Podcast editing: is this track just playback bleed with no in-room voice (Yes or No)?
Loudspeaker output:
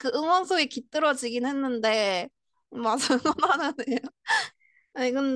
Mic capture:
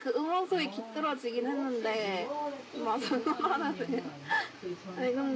No